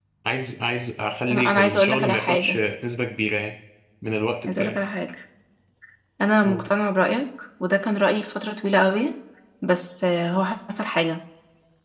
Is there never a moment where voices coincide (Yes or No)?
No